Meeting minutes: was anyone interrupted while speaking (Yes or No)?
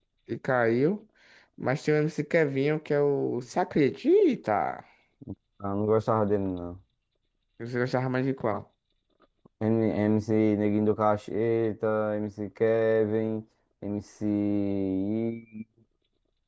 No